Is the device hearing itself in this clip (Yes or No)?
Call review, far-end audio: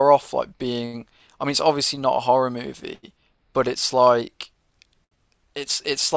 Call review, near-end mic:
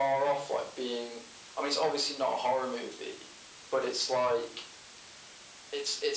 Yes